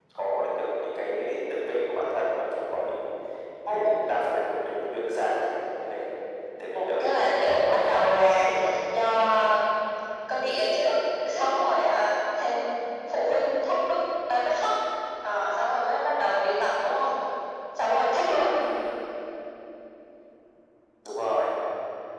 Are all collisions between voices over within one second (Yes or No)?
No